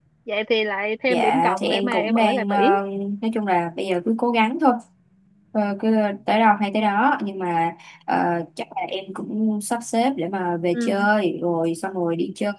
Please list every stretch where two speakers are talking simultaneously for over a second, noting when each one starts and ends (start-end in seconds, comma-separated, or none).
1.1-2.6